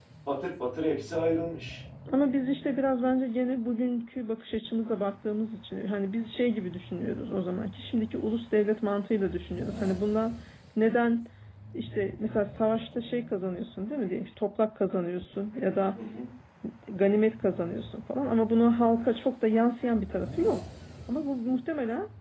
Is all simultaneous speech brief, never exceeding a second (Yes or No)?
Yes